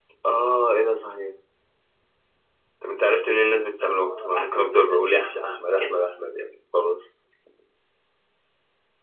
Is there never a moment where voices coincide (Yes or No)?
No